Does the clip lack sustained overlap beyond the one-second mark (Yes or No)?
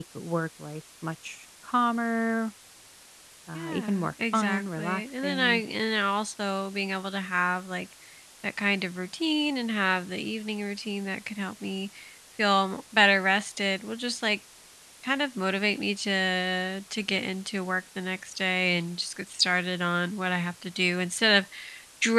No